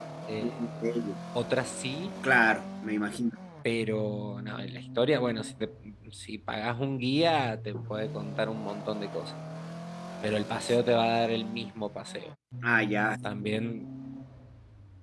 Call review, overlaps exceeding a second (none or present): none